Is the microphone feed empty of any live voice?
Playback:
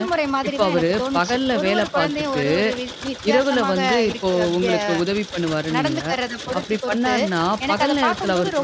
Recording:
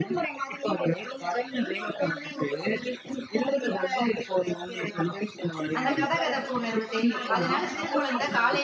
No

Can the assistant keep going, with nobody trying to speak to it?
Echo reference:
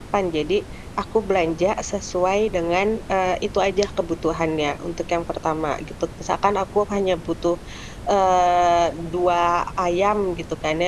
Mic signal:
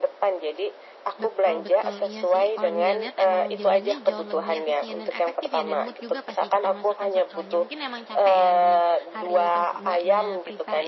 No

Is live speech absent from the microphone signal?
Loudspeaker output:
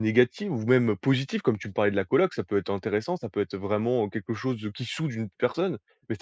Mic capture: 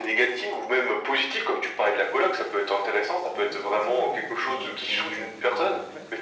No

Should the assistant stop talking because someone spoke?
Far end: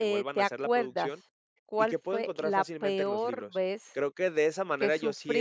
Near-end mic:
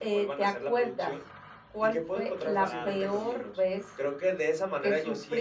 Yes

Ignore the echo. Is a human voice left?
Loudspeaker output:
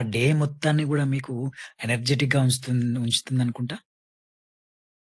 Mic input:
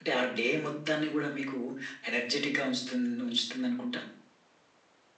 No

